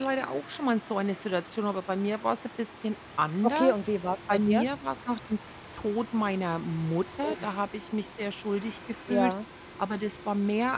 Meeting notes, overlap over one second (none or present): none